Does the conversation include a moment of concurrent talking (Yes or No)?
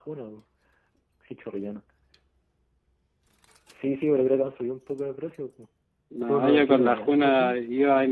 Yes